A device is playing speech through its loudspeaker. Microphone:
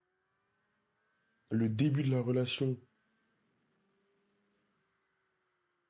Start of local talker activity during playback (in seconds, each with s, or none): 1.5 s